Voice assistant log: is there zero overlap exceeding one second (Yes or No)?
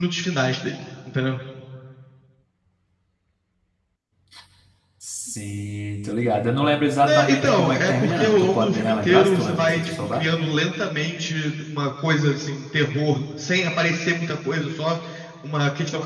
No